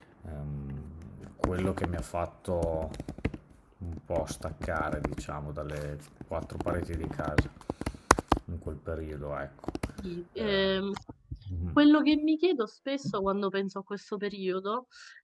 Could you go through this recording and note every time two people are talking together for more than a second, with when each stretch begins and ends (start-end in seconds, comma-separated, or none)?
none